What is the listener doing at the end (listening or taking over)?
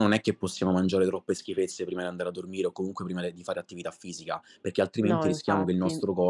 listening